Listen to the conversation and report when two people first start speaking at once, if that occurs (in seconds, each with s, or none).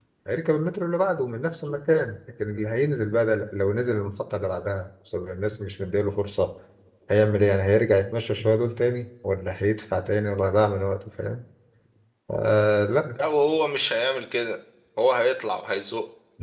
none